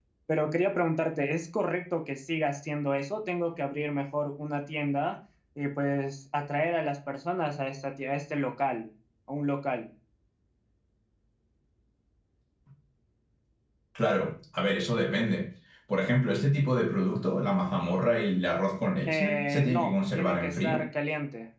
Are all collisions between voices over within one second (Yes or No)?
No